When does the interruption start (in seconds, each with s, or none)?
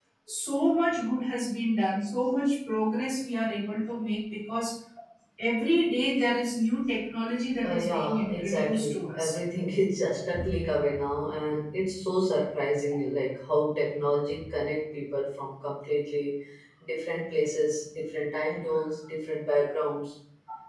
7.6 s